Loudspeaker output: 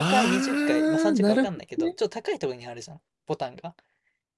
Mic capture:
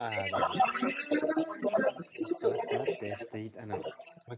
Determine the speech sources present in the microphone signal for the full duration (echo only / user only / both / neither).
both